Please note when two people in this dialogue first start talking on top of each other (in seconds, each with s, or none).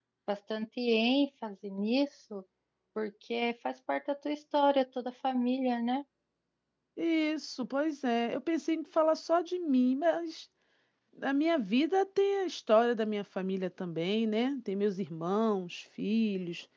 none